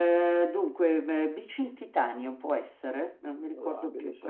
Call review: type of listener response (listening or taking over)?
listening